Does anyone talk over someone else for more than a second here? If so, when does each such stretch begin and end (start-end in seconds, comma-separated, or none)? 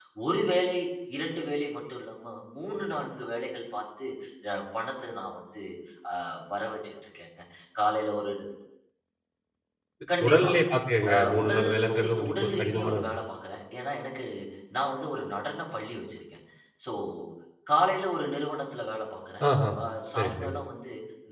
11.1-13.1